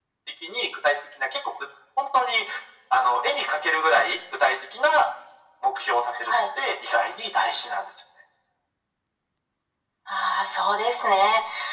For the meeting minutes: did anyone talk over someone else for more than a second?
No

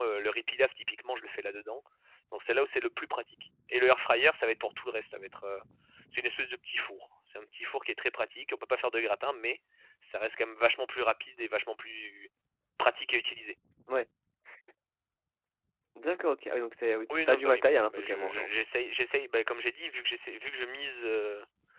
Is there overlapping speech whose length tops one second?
Yes, from 17.1 s

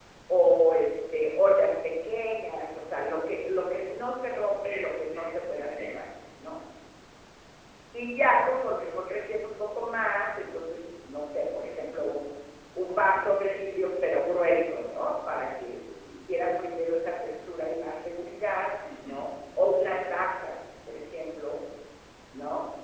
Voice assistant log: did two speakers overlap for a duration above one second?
Yes, from 4.5 s

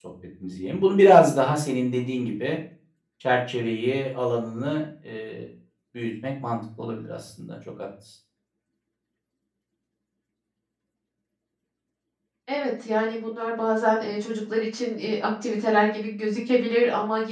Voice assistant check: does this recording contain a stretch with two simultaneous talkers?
No

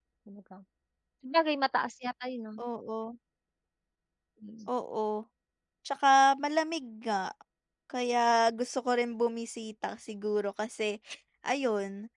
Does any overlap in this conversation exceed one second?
No

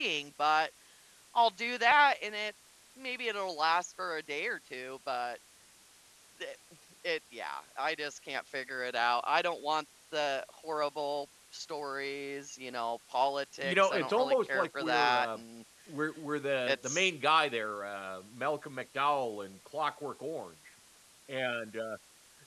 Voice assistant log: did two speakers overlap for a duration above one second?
Yes, from 13.6 s

